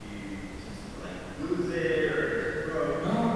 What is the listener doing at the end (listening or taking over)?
taking over